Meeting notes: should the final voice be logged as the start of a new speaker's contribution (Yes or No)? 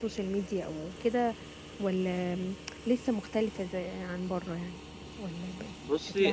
Yes